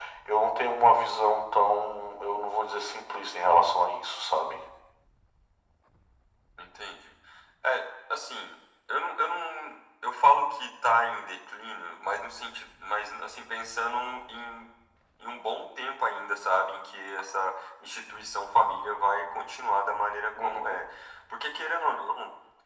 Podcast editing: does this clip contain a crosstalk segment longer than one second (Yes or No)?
No